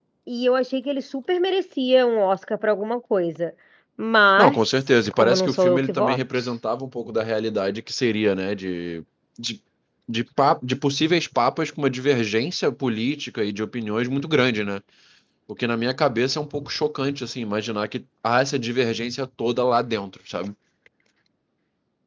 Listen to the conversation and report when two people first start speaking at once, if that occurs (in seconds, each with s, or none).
4.4 s